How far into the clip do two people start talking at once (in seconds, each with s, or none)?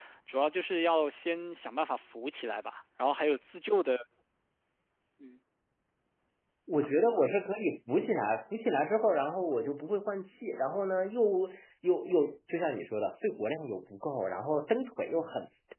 none